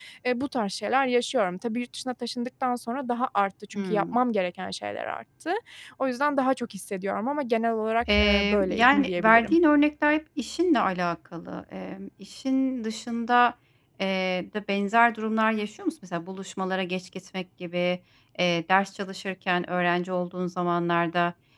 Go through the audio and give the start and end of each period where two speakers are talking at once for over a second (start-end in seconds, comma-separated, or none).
8.1-9.6